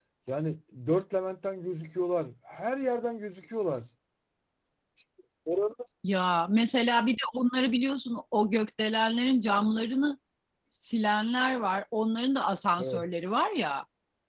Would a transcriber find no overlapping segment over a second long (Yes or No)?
Yes